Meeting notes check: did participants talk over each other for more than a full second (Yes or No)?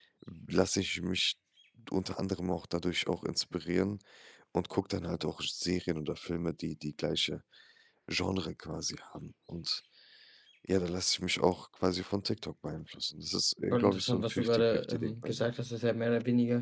Yes